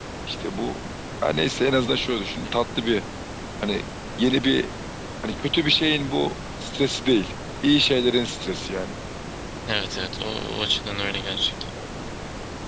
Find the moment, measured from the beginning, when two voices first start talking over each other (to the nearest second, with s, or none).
none